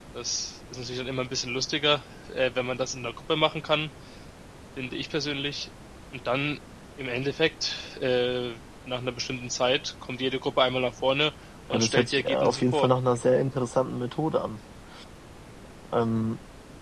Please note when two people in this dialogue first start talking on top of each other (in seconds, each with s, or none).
11.7 s